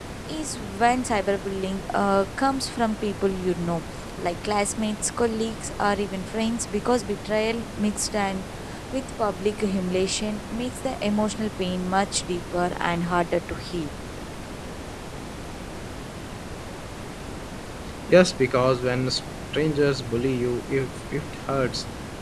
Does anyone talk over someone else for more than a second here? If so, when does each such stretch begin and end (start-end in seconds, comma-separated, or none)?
none